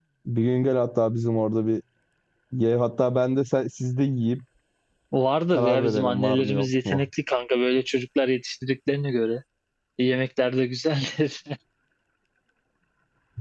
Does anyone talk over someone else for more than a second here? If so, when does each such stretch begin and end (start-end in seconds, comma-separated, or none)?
5.5-7.1